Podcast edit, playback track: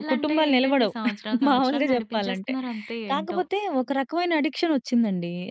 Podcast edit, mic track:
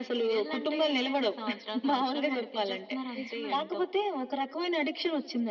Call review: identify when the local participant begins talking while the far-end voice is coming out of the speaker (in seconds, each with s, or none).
3.1 s